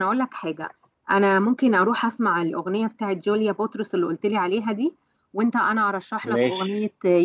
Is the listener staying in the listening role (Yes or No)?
Yes